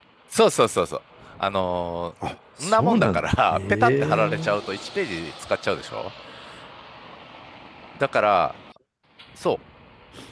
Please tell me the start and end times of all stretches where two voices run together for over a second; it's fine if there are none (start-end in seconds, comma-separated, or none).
2.6-4.5